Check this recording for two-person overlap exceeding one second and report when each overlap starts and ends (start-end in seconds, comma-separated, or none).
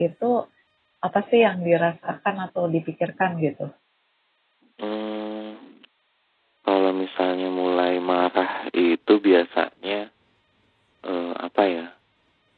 none